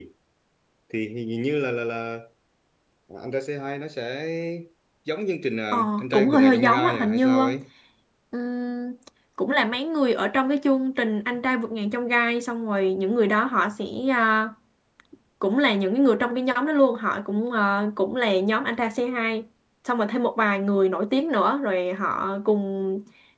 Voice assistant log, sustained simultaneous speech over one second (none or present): present